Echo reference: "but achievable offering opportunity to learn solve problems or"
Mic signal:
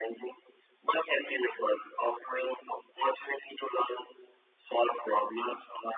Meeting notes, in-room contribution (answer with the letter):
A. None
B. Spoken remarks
A